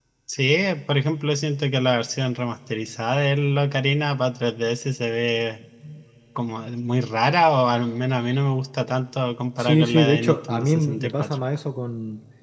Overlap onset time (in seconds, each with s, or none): 9.6 s